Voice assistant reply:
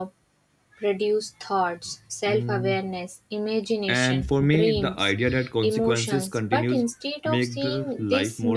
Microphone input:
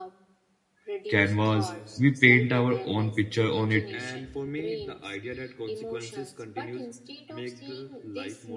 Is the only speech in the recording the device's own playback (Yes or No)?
No